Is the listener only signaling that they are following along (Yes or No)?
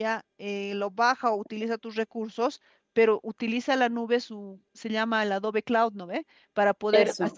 Yes